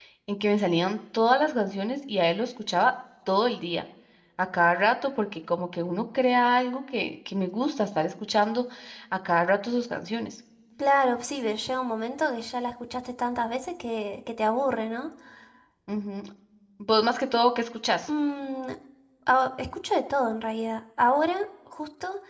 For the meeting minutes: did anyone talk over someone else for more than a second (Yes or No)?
No